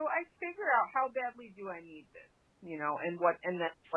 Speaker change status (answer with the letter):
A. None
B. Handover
A